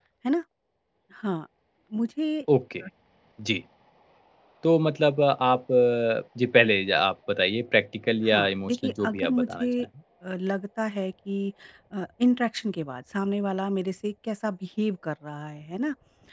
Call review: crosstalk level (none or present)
present